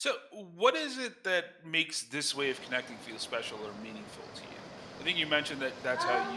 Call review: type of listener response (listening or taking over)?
listening